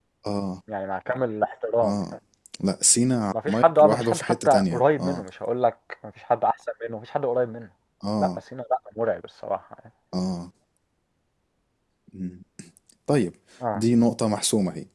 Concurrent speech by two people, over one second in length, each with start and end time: 3.5-5.2

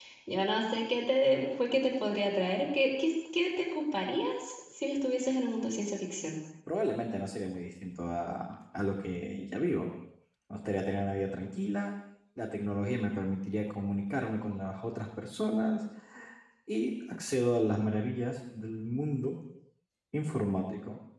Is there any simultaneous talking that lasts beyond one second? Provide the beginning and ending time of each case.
none

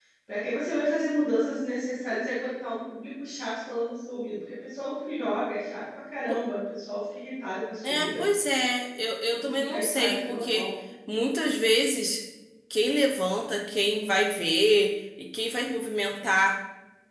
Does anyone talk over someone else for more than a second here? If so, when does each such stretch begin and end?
9.3-10.7

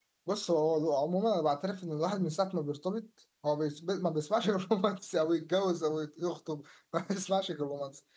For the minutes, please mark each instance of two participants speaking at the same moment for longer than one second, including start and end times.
none

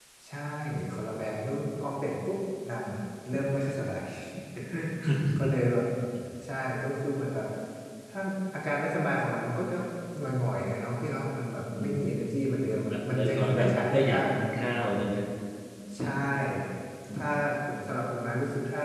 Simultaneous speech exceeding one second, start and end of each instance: 12.9-14.2

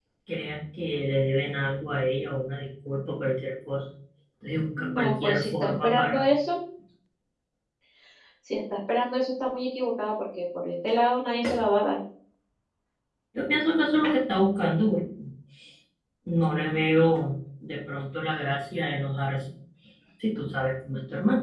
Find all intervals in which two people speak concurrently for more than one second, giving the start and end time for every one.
5.0-6.2

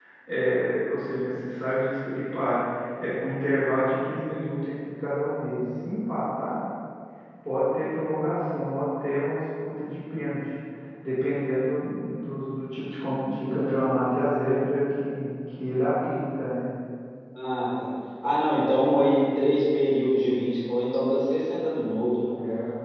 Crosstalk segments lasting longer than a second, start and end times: none

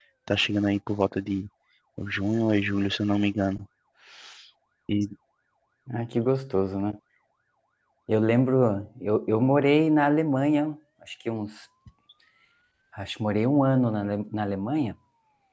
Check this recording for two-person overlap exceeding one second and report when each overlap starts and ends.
none

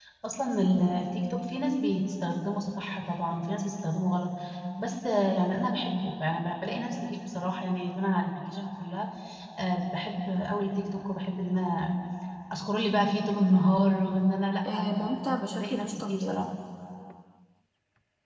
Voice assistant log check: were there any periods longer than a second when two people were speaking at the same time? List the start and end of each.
14.7-16.5

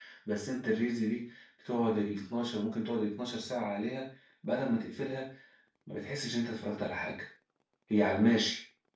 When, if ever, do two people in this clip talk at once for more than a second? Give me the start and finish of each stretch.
none

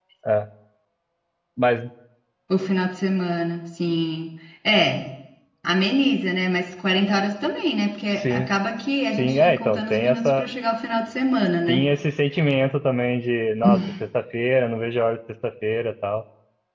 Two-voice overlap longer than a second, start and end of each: 9.2-10.4

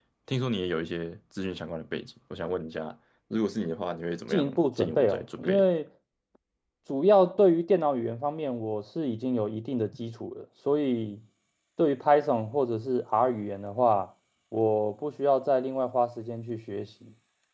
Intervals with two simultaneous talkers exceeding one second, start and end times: 4.3-5.7

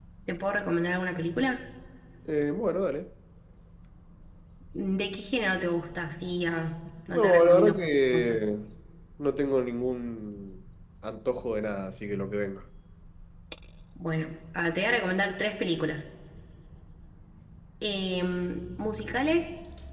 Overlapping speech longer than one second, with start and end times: 7.1-8.4

